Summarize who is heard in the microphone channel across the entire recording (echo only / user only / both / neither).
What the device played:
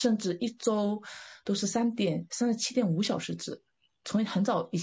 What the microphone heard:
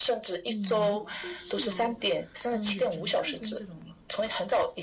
both